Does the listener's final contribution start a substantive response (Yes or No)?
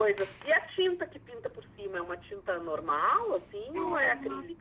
Yes